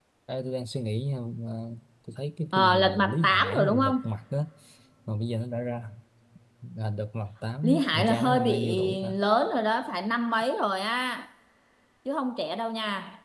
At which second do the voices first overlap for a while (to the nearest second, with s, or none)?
3 s